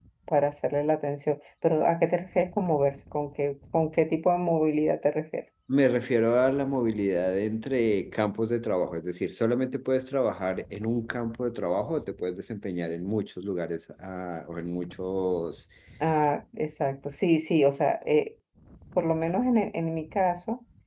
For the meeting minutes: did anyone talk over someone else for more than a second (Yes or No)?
No